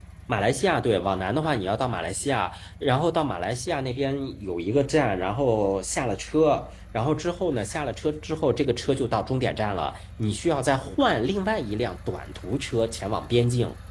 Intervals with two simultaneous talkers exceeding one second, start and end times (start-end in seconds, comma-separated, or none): none